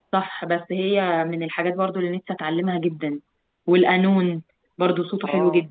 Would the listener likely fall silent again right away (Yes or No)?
No